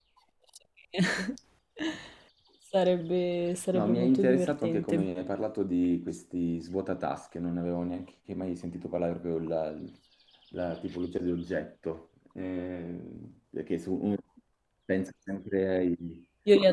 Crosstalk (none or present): present